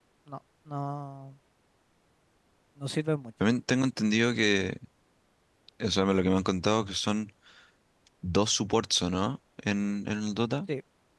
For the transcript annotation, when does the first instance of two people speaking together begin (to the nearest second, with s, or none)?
none